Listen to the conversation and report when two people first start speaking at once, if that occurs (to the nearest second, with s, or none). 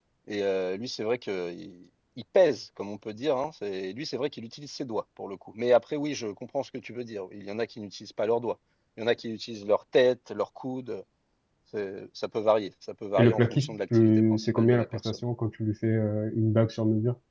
13 s